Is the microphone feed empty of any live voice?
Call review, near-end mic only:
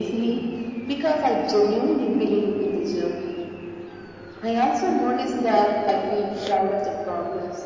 Yes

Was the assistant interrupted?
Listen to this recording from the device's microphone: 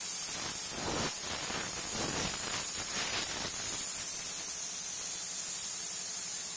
No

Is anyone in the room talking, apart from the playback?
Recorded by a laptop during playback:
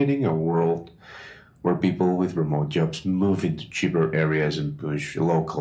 No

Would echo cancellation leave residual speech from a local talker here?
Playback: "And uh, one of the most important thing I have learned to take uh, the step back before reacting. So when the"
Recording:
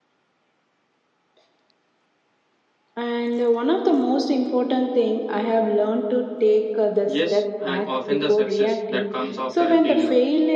Yes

